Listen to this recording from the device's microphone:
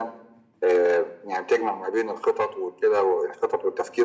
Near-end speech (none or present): none